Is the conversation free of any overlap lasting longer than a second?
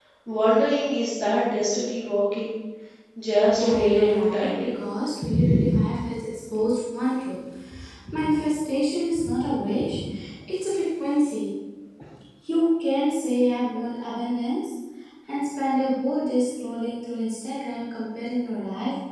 No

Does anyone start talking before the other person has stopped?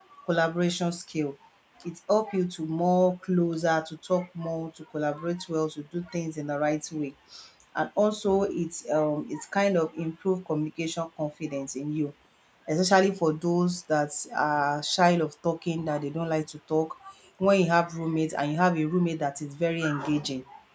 No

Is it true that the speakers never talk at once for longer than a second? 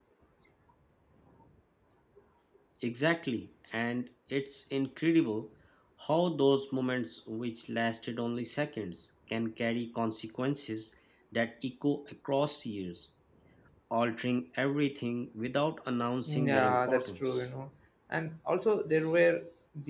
No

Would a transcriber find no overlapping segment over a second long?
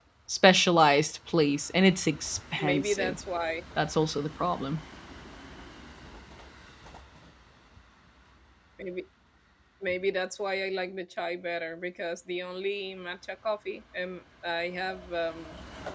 Yes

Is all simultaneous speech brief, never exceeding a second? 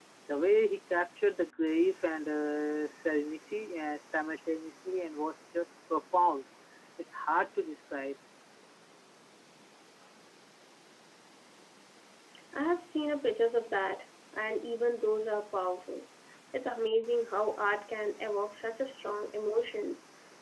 Yes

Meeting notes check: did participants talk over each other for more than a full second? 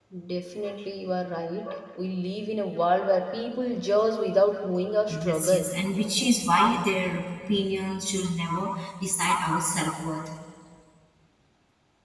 No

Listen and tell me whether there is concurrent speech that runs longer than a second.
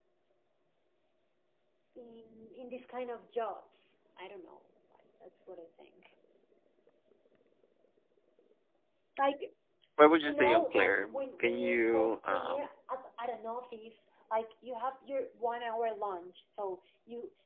Yes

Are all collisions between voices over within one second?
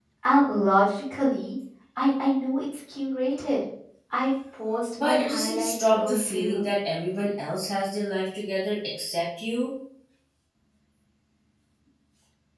No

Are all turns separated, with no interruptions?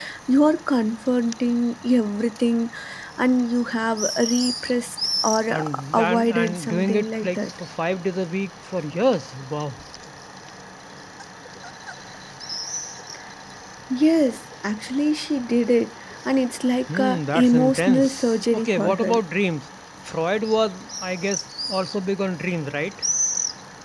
No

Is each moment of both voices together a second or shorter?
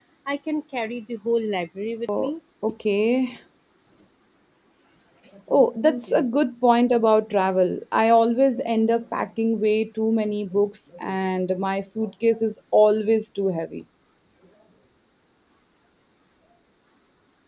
Yes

